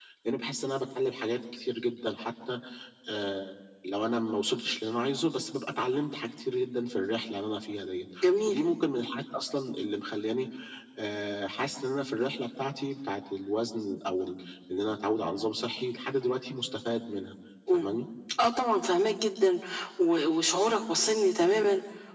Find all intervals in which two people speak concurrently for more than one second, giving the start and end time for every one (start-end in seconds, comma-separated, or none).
none